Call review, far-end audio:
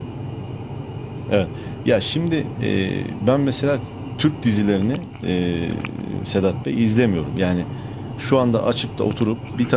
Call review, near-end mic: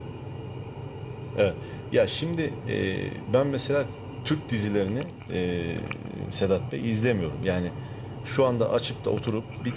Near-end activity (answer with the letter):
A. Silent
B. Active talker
A